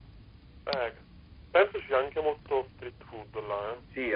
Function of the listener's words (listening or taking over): taking over